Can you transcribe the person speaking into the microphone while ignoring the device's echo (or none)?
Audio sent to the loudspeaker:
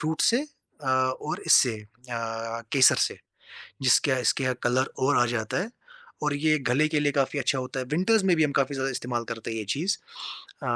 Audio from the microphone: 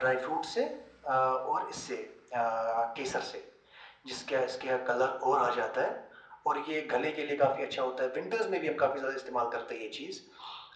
none